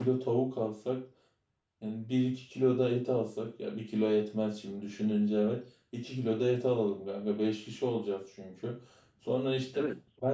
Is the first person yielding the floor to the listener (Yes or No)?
No